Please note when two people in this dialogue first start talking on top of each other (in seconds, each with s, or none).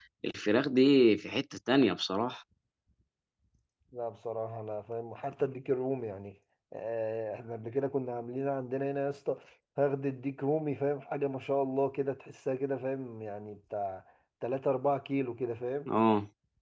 none